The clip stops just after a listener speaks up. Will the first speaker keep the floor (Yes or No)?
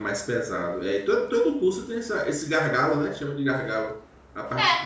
No